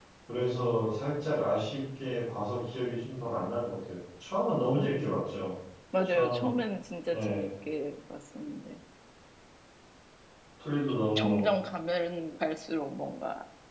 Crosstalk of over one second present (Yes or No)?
No